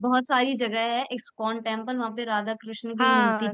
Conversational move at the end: taking over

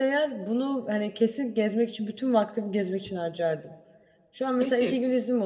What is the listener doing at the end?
listening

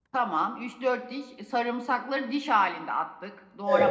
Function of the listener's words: taking over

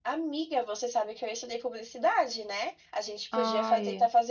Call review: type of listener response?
listening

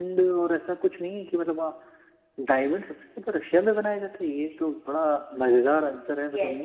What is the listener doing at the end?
taking over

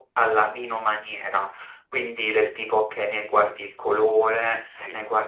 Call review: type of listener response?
listening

